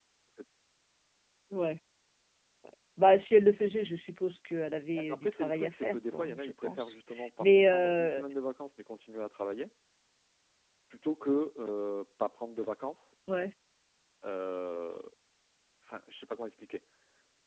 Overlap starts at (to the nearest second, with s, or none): 5 s